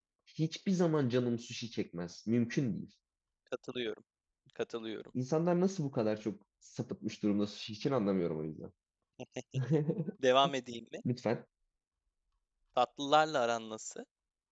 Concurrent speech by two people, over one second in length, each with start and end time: none

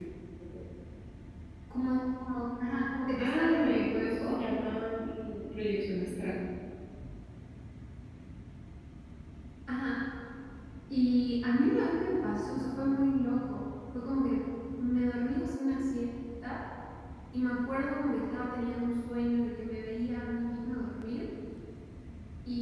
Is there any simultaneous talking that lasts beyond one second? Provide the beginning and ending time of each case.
3.2-4.4

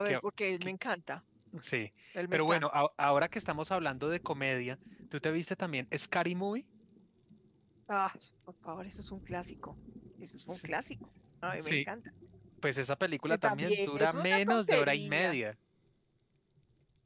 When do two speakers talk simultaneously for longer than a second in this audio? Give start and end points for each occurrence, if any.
13.3-15.4

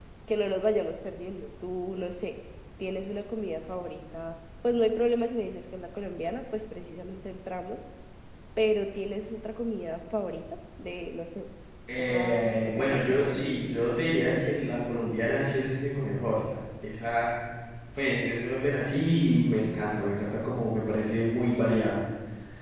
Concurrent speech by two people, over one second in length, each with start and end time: 12.0-13.5

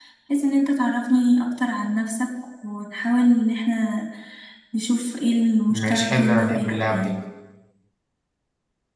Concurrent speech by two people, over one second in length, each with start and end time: 5.7-7.1

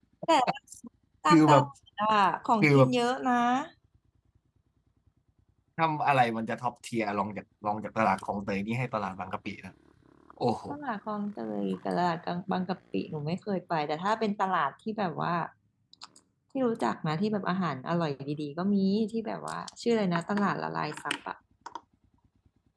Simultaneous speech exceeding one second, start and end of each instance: none

